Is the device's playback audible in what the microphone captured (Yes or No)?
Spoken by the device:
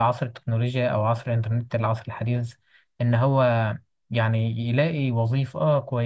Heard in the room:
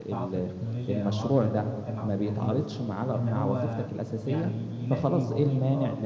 Yes